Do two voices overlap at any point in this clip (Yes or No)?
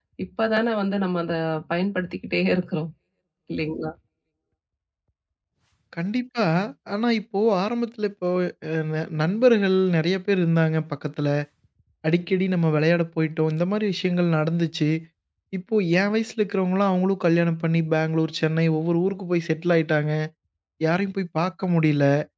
No